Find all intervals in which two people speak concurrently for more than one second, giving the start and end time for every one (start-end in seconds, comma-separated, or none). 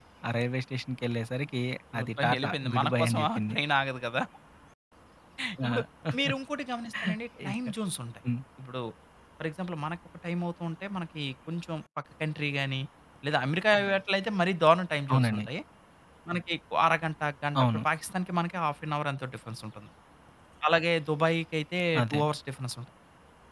2.0-3.6